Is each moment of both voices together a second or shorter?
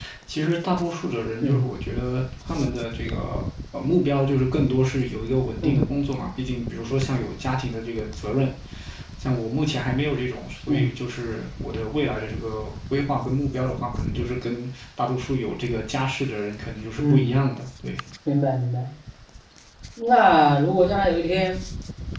Yes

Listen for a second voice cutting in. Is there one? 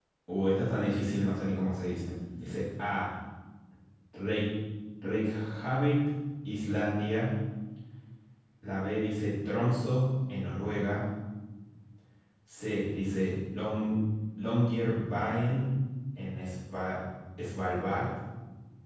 No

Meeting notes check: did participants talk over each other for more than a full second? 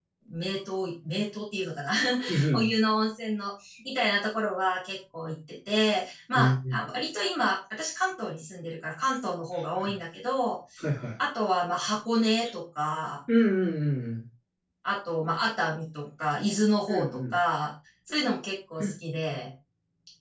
No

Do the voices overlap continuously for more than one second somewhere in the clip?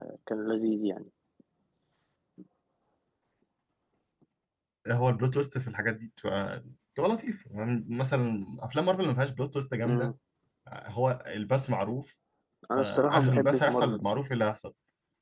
Yes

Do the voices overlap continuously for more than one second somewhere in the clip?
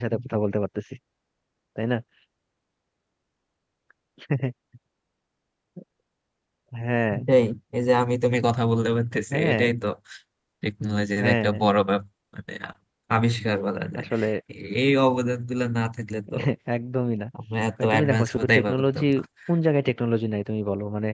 Yes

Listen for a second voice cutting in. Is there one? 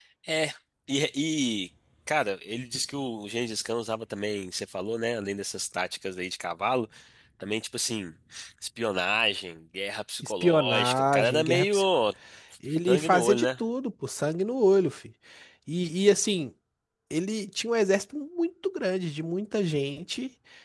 Yes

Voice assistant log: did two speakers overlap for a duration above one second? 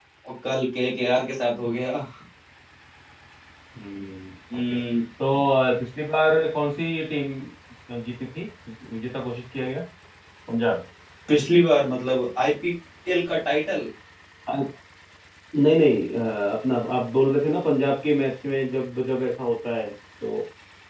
No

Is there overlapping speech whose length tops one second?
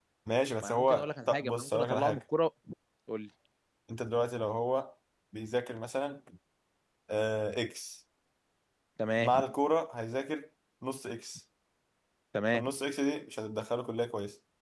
Yes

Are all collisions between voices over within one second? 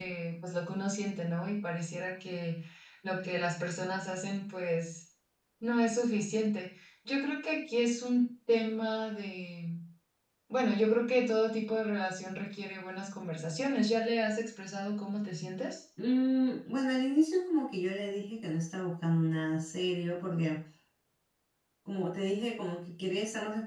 Yes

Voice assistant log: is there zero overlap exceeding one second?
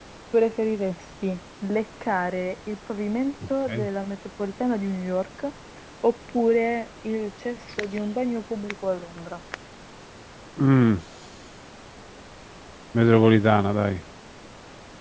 Yes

